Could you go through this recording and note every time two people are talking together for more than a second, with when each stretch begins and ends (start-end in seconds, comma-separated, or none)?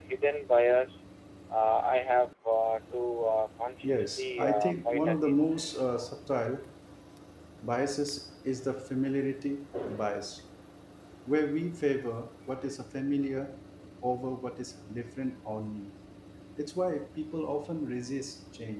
3.8-5.5